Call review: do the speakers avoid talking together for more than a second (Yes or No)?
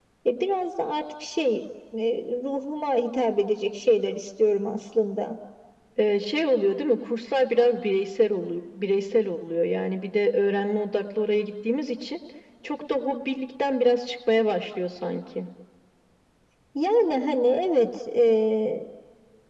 Yes